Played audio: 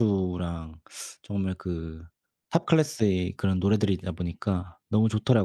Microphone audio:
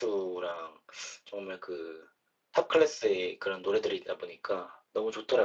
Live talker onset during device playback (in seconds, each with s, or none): none